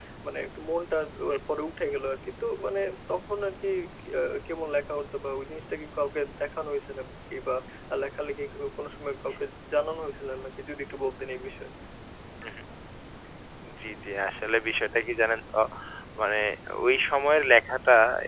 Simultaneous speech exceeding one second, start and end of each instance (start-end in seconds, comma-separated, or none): none